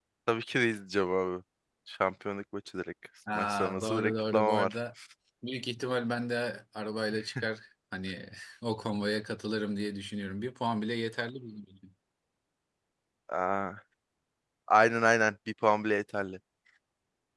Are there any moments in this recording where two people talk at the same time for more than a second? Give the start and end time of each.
3.4-4.8

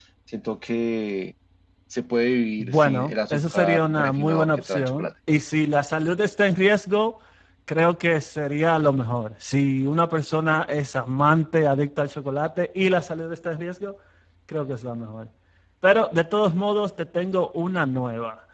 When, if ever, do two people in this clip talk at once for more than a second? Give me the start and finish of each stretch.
2.6-5.1

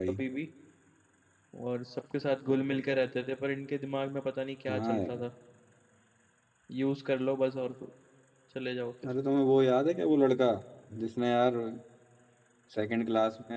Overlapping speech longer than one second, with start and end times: none

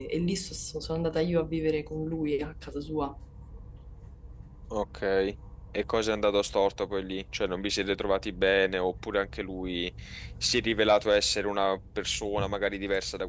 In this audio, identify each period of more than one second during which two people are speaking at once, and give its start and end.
none

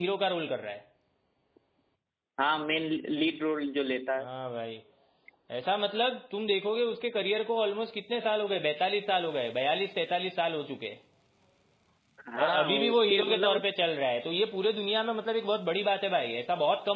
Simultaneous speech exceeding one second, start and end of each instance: 12.4-13.7

